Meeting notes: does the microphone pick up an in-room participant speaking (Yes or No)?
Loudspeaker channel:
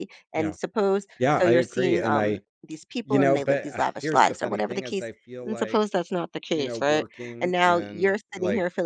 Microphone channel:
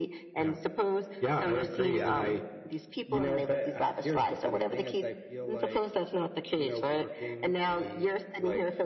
Yes